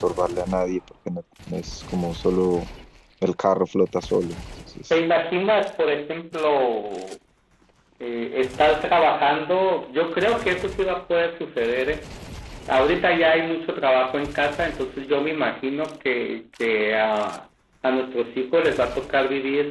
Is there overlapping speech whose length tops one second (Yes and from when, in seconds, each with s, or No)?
No